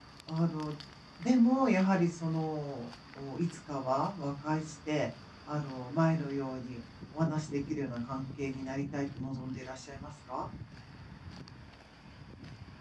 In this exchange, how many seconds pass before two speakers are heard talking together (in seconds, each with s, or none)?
none